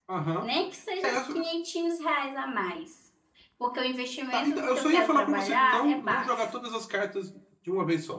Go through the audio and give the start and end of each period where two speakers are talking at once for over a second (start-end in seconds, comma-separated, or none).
4.3-6.5